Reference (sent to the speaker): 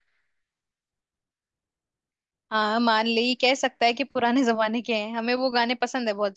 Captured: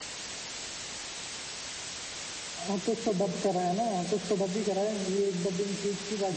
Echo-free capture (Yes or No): Yes